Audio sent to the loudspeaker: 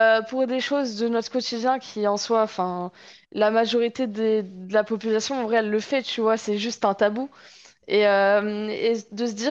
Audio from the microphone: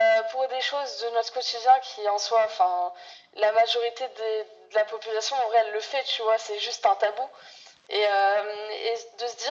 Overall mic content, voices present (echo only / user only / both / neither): echo only